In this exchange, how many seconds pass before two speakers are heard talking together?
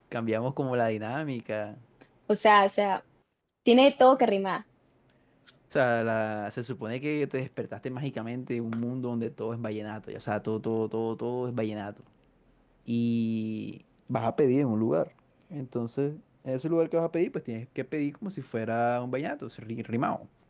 none

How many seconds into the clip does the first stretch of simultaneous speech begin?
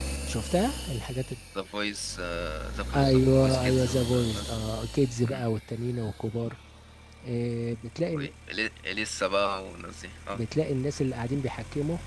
3.0 s

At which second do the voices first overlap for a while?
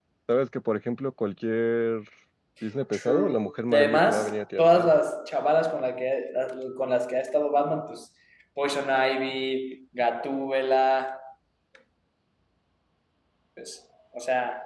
2.9 s

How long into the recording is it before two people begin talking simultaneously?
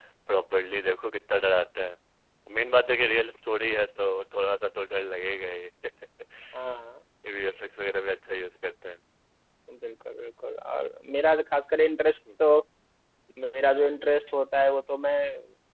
none

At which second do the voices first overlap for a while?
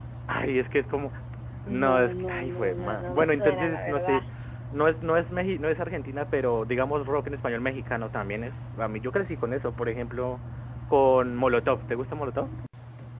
1.8 s

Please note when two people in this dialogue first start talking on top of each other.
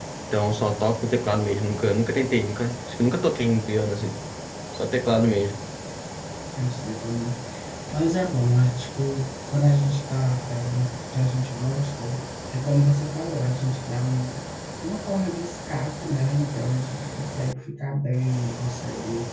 none

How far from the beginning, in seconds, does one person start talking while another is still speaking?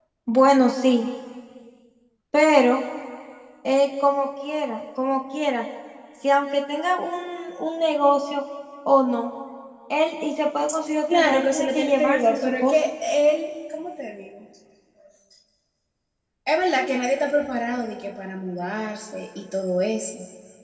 11.1 s

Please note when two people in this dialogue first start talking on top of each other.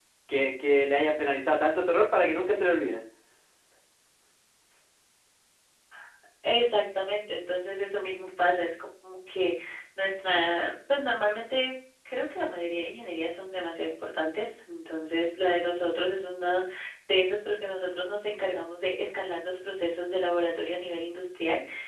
none

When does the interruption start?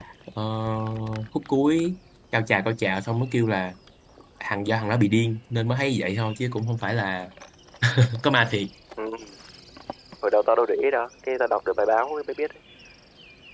none

